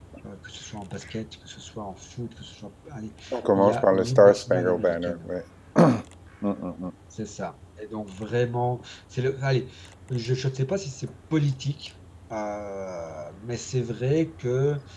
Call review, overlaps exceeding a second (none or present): present